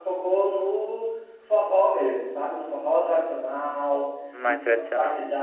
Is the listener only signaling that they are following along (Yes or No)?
Yes